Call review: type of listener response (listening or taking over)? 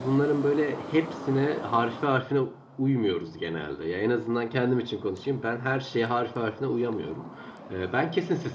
listening